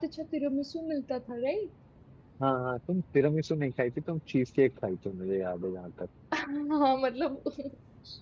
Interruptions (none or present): none